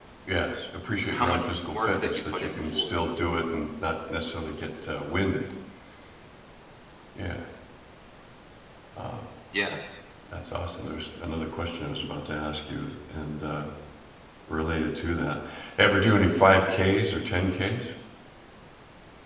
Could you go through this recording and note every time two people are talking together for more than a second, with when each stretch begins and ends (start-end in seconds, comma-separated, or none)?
1.1-3.0